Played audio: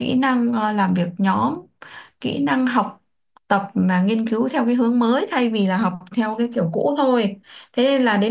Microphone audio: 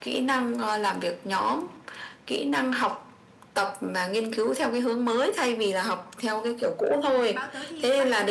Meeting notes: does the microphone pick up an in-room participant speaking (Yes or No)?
Yes